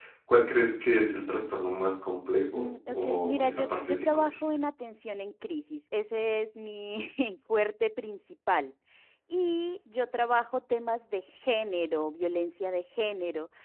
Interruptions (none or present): present